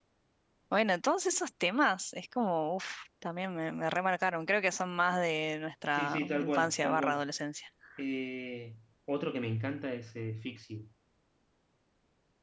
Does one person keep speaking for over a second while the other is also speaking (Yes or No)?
Yes